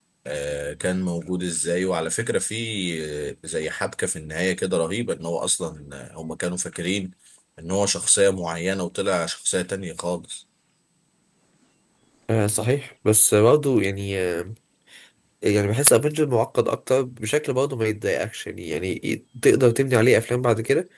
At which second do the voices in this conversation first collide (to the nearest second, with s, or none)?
none